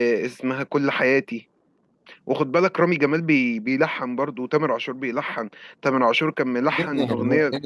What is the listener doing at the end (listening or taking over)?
taking over